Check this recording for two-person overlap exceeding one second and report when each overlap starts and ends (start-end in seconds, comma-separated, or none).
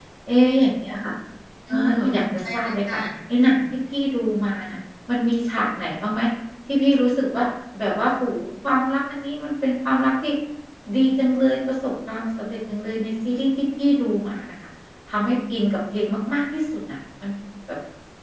1.7-3.0